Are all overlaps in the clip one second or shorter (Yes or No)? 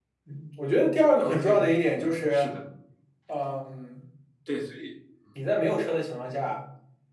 No